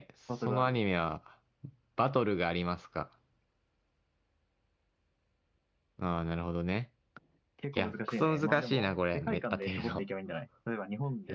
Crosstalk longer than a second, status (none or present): present